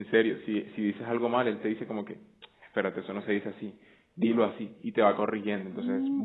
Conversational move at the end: taking over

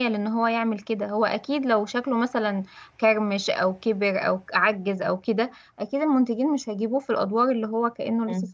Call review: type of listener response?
taking over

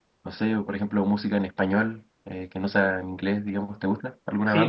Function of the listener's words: taking over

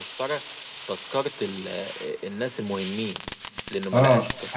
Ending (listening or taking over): taking over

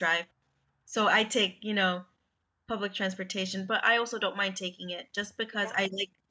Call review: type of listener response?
listening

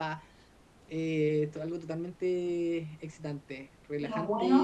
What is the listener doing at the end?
listening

